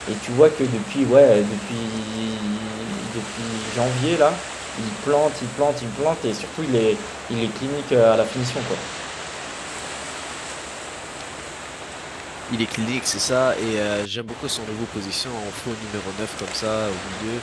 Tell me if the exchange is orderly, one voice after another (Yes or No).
Yes